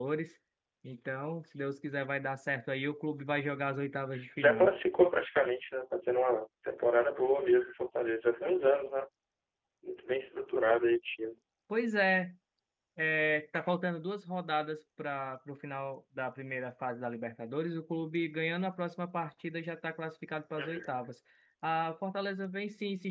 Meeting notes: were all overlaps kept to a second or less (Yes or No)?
Yes